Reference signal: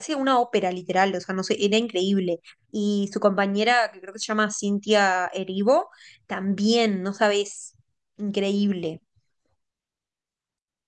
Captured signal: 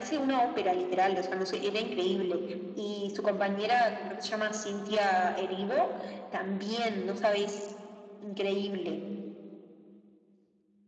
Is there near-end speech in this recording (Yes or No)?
No